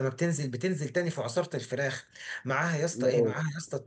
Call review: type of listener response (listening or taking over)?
listening